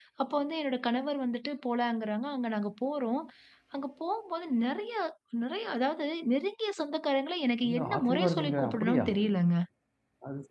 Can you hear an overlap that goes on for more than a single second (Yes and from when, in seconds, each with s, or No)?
Yes, from 7.6 s